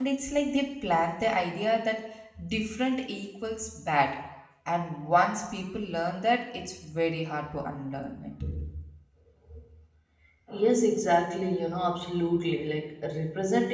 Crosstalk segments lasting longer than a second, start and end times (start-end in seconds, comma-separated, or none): none